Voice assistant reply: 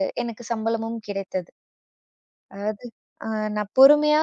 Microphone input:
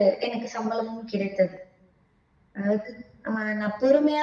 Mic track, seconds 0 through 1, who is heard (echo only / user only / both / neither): echo only